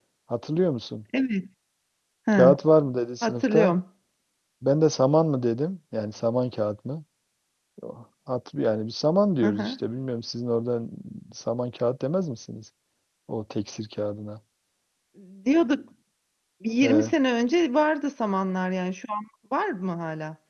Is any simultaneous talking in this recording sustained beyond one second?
No

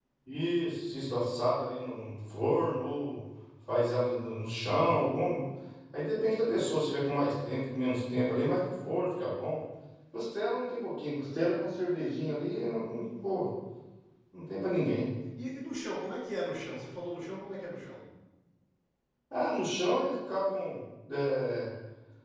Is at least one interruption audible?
No

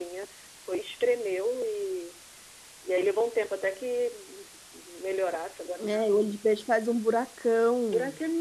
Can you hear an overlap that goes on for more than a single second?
No

